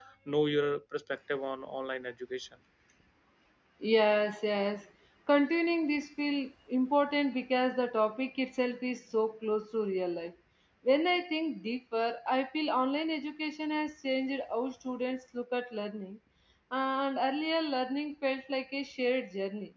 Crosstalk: none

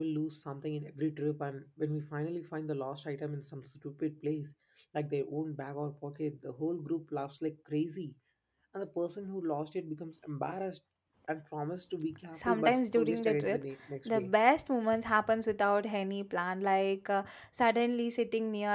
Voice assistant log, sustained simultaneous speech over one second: present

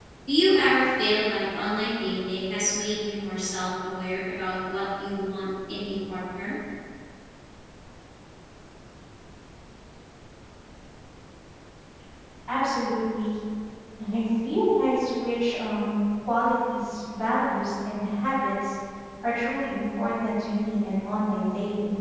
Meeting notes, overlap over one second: none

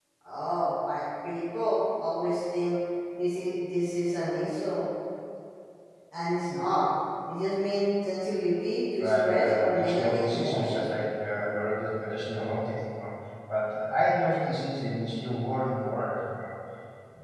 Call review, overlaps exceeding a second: present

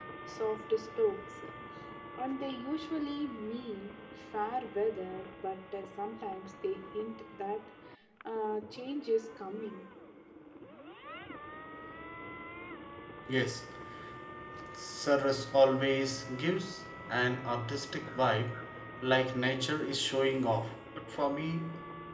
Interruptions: none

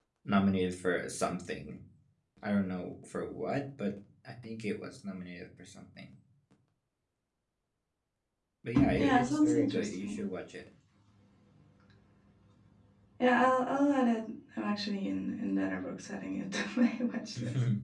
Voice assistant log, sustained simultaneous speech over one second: present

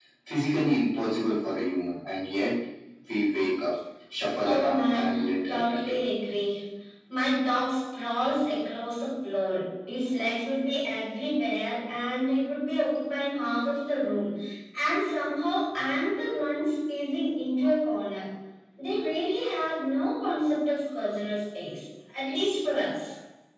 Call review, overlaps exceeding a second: present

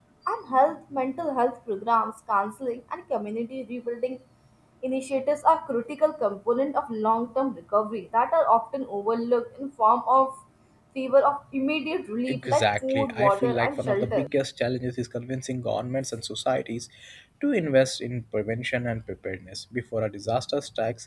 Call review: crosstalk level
present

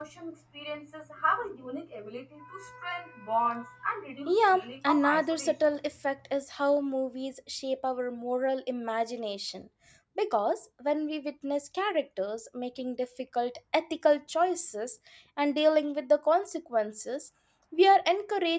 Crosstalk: present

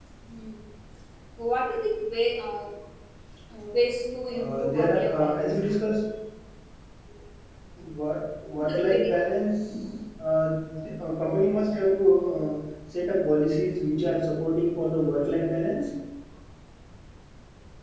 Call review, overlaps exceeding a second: present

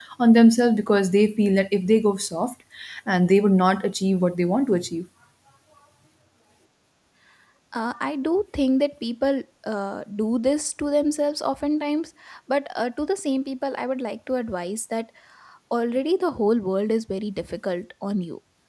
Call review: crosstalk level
none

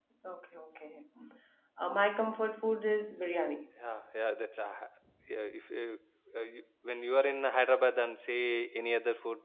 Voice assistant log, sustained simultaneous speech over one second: none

